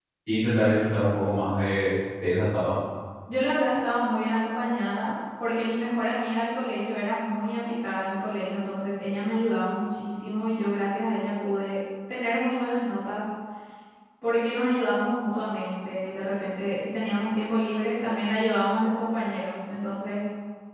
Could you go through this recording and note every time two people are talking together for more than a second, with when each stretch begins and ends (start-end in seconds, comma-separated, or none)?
none